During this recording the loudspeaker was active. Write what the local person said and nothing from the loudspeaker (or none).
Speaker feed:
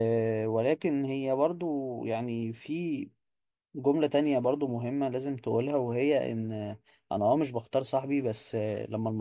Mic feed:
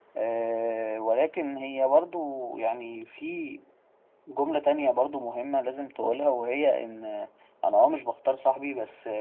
none